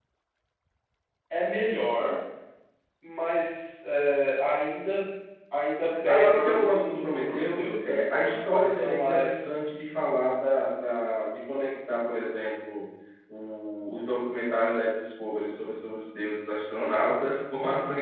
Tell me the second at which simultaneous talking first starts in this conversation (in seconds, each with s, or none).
6.0 s